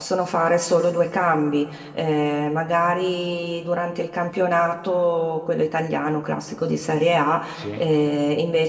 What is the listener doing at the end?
listening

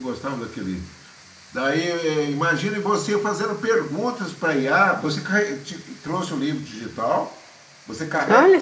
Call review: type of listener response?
listening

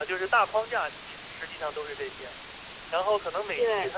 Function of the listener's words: listening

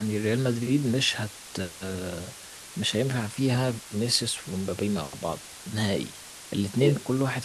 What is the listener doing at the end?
listening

